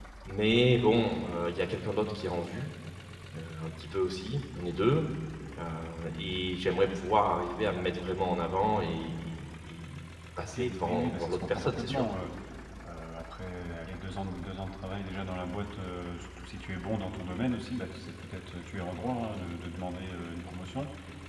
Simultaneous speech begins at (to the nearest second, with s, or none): 10 s